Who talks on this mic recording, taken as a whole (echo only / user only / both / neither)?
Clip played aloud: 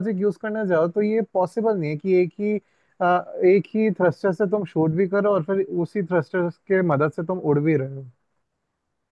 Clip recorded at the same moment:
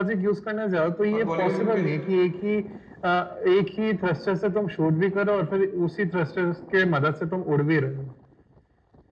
both